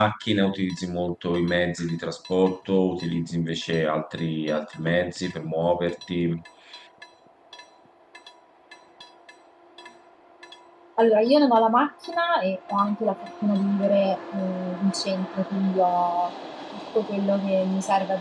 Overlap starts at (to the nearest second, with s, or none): none